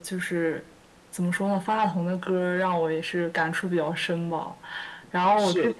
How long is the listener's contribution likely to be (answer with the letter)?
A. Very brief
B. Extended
A